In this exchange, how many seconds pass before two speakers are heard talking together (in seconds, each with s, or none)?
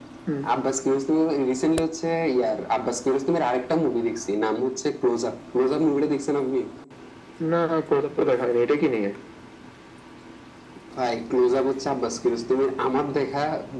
none